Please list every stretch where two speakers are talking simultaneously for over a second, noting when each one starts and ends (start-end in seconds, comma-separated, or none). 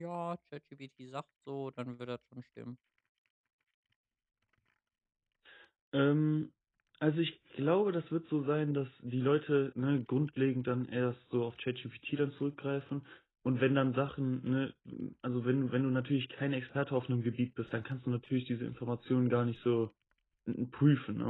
none